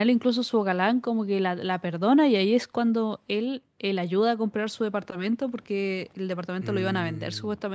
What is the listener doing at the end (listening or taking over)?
listening